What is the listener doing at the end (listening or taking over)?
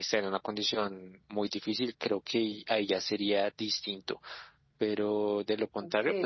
listening